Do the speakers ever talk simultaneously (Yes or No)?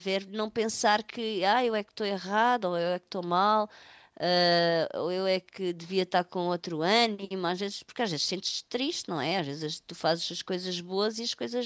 No